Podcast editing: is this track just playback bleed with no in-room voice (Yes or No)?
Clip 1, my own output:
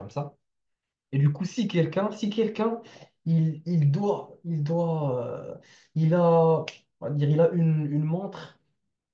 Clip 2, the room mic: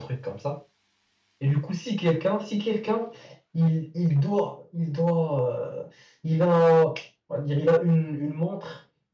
Yes